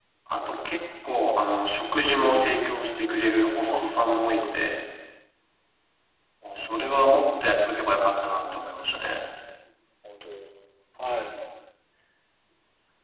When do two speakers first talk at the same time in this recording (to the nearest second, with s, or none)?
2 s